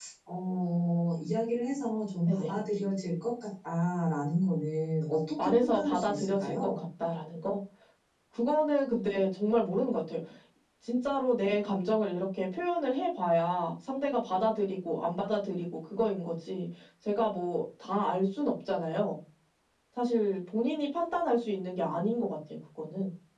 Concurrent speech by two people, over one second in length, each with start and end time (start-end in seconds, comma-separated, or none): 5.4-6.8